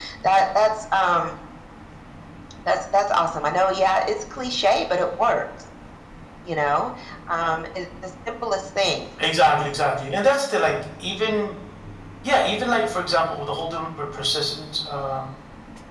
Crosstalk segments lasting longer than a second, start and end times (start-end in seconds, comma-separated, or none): none